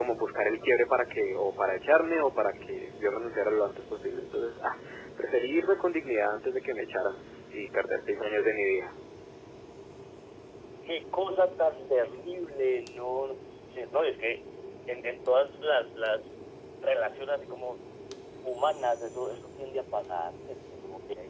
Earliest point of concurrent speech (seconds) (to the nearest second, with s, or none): none